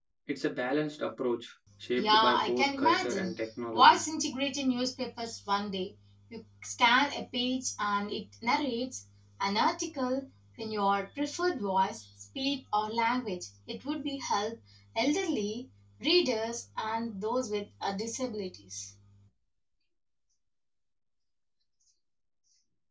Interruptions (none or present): present